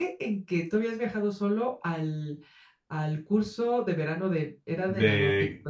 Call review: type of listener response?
taking over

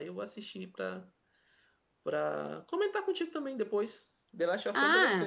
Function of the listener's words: taking over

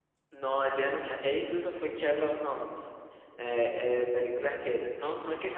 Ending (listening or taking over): listening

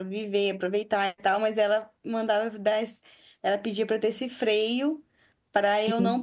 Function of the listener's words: listening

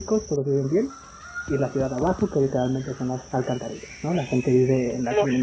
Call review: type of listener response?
listening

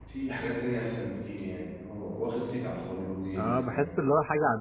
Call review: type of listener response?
taking over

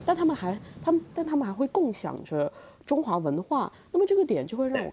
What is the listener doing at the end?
listening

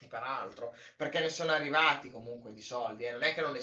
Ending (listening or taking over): listening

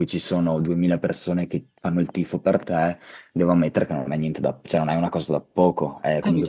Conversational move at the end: taking over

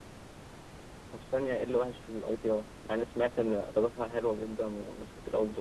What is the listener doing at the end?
taking over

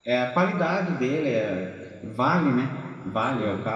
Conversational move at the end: listening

